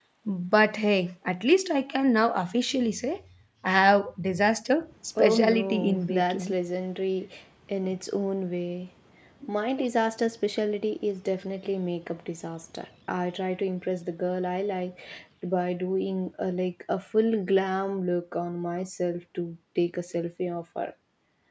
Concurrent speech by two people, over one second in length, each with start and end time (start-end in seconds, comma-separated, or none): 5.2-6.5